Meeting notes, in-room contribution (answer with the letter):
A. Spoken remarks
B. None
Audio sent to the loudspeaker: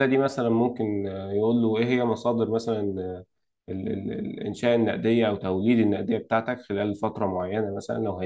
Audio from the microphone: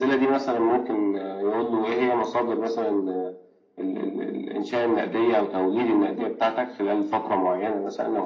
B